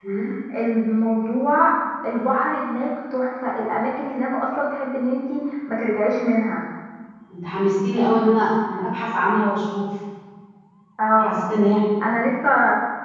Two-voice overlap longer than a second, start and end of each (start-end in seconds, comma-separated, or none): none